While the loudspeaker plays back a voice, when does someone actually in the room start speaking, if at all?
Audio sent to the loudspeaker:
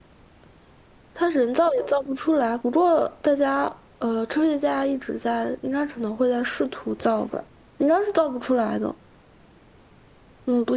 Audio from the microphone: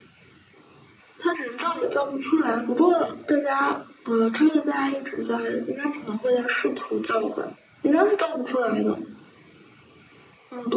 none

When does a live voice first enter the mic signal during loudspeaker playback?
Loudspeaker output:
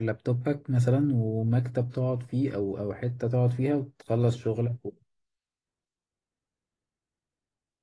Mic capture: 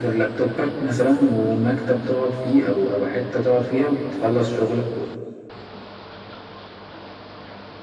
none

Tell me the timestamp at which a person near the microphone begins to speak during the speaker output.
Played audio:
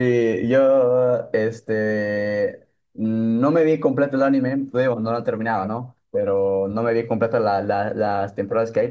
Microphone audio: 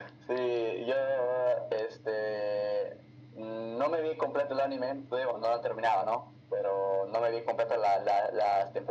none

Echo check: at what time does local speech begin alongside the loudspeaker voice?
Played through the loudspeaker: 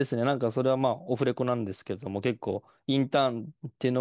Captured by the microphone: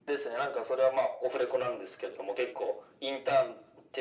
none

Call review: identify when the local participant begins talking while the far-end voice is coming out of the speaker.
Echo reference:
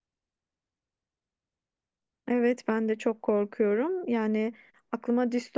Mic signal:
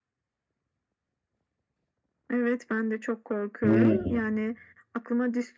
3.6 s

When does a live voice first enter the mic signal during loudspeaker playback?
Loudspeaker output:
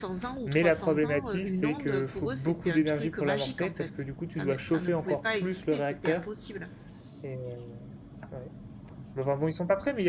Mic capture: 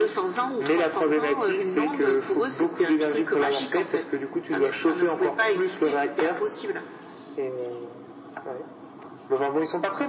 none

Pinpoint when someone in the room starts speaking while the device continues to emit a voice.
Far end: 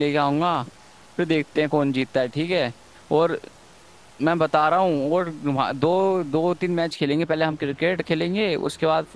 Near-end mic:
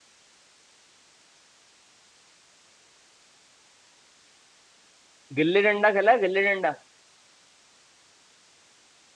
5.4 s

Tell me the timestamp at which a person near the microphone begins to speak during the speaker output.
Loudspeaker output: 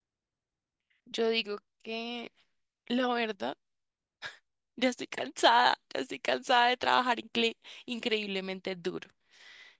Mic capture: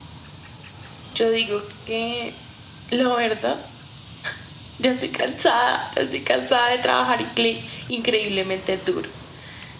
none

